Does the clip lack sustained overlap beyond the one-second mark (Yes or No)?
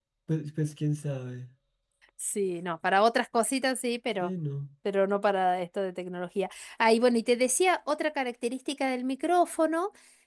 Yes